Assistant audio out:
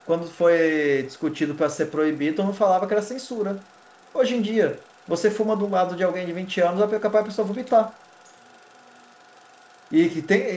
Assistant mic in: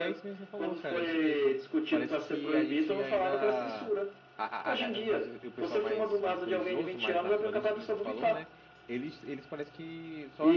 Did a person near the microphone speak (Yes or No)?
Yes